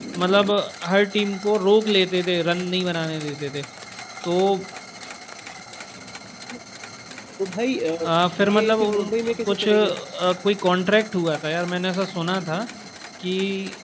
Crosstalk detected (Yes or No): Yes